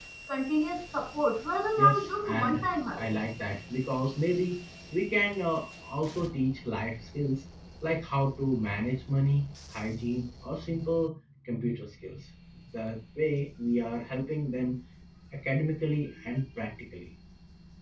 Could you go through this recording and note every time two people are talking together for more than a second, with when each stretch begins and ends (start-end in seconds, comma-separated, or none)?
1.8-3.1